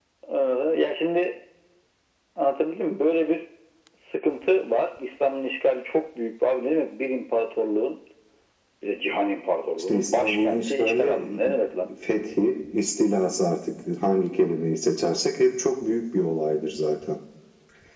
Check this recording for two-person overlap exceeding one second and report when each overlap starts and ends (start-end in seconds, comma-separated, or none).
9.8-11.5